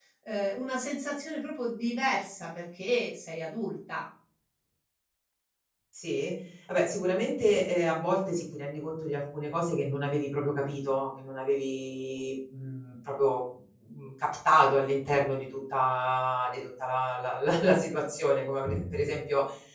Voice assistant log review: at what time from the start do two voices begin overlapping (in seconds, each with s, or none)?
none